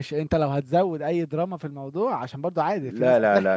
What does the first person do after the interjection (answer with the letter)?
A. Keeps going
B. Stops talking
B